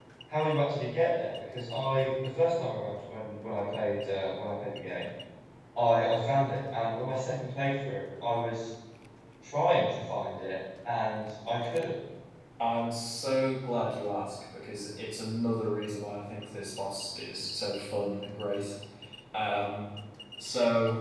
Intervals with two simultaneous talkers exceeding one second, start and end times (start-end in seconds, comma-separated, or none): none